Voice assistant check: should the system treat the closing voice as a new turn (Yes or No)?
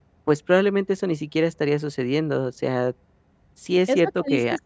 Yes